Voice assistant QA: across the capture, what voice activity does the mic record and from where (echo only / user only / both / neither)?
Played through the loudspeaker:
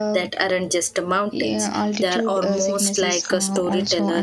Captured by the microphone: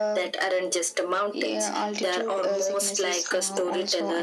echo only